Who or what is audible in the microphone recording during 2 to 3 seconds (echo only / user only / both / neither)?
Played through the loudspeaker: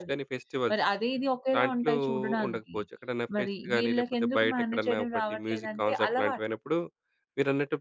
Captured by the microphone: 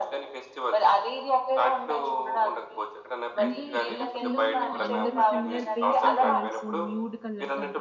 echo only